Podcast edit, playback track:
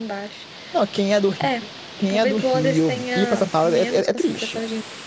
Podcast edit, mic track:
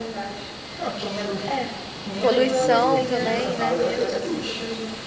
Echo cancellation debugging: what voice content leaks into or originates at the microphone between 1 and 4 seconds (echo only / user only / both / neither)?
both